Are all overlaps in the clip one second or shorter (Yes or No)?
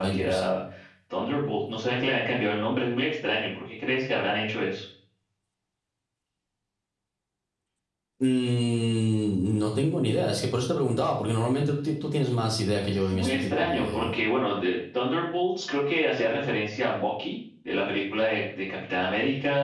No